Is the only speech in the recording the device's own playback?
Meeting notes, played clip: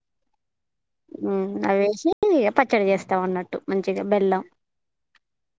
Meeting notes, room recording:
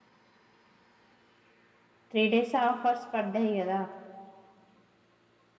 No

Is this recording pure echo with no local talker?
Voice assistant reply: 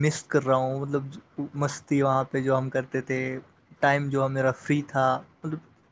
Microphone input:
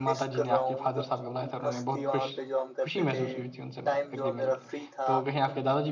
No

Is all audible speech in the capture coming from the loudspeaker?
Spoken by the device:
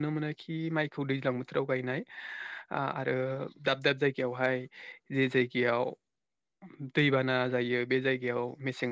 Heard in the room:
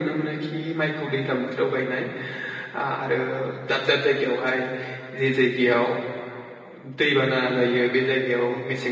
Yes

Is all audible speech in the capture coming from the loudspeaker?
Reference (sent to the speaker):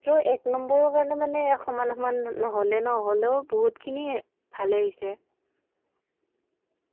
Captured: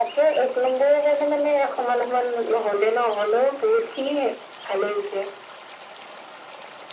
Yes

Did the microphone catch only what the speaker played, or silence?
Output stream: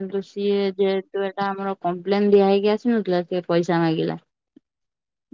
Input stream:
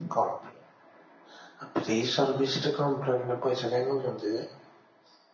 No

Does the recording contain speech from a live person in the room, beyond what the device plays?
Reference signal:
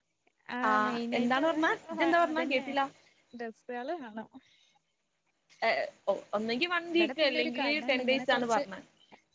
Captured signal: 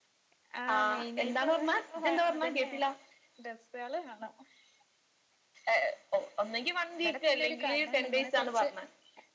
No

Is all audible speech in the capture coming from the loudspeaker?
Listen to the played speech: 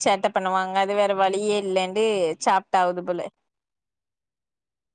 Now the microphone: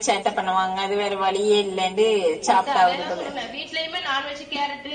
No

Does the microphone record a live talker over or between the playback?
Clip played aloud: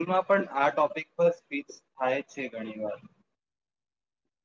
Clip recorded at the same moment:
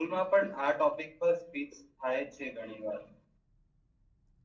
No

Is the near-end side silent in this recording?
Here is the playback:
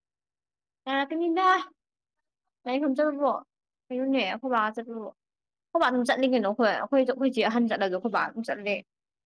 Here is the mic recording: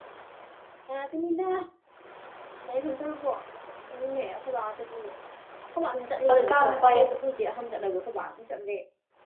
No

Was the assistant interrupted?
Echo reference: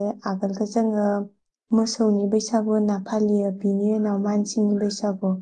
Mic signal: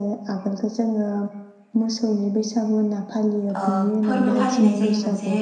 Yes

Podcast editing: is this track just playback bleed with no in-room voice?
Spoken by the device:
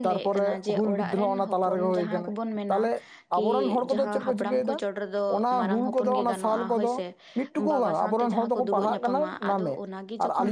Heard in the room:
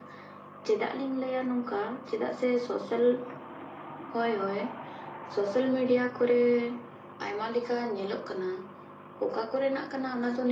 No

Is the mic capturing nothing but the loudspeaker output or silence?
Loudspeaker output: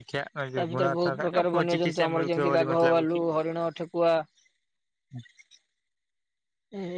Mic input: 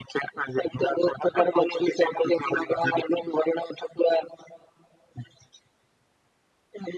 Yes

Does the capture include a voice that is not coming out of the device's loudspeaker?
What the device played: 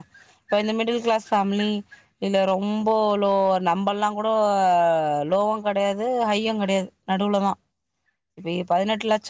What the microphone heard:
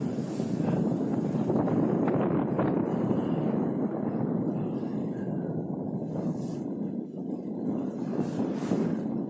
No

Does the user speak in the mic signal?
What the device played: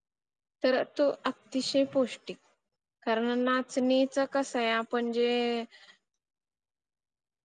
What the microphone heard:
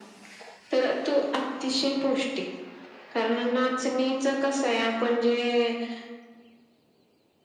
No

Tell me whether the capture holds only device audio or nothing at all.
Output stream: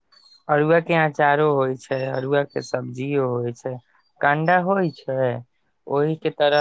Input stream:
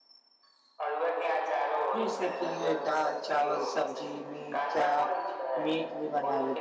No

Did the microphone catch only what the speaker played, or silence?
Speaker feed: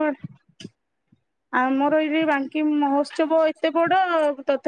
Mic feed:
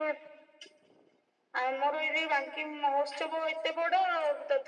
Yes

